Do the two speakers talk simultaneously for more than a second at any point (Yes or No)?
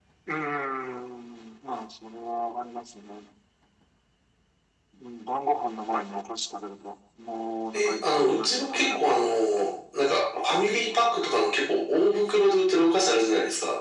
Yes